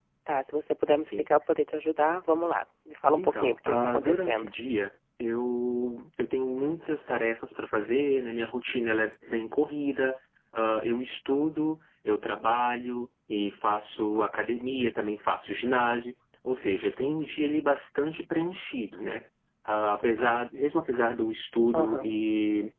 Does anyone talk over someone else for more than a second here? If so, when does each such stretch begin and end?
3.2-4.5

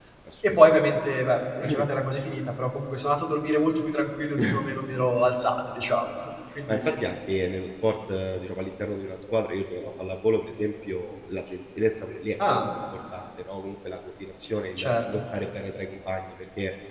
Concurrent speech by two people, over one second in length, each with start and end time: none

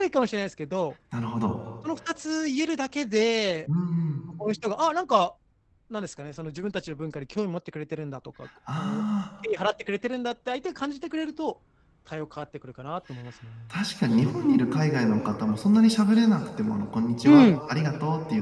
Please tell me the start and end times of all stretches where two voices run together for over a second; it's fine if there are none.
none

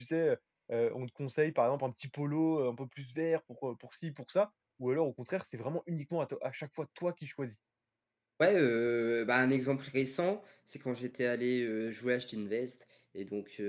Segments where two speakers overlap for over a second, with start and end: none

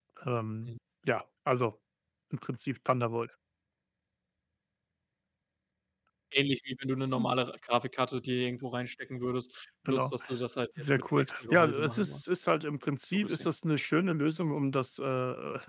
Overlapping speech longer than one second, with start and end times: 10.8-12.2

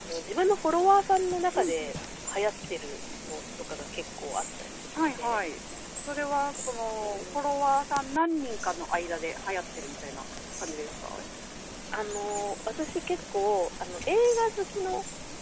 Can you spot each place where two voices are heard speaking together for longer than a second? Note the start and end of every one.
none

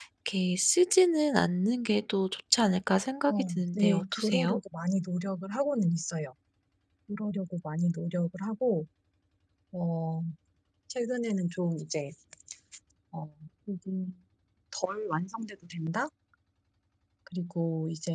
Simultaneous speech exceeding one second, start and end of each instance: 3.3-4.6

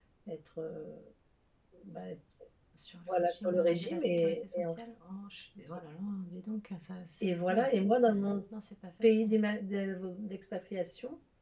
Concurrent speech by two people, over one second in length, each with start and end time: 3.1-4.8

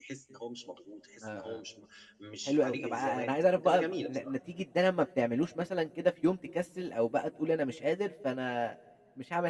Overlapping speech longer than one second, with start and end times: 2.5-4.2

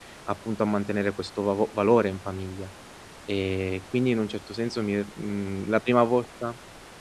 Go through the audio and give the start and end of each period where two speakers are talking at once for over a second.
none

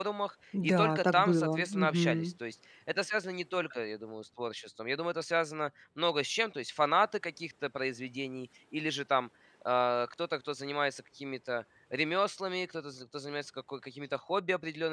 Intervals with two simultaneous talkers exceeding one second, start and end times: 0.6-2.3

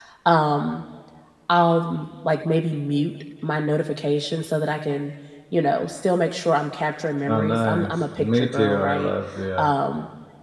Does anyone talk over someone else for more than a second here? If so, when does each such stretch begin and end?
7.3-9.1

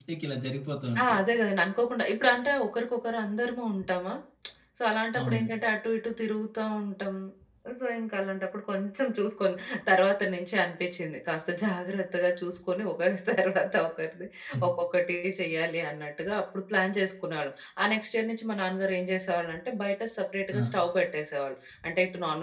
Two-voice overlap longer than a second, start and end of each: none

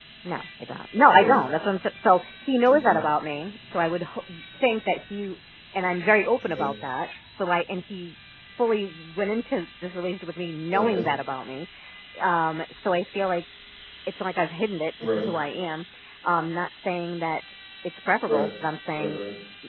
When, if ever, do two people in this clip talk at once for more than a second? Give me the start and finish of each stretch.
none

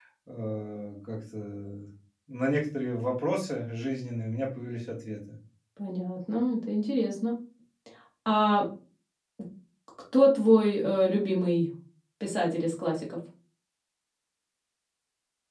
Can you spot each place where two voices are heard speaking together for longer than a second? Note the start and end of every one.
none

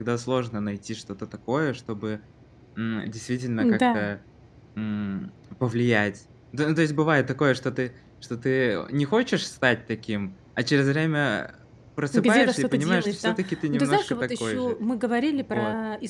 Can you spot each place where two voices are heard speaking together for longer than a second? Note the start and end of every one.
12.1-14.8

